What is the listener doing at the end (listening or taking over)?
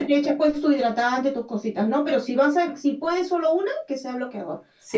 taking over